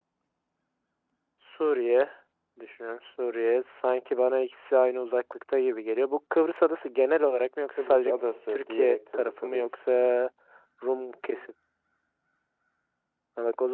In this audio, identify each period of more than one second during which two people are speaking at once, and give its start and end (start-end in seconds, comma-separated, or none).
8.5-9.7